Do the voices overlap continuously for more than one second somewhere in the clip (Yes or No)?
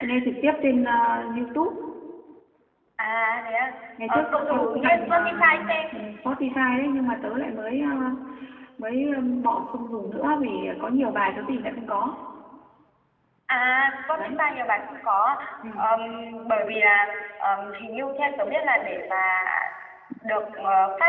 Yes